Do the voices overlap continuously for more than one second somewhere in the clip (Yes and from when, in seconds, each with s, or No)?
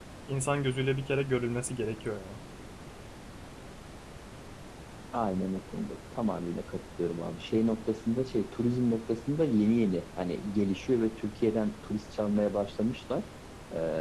No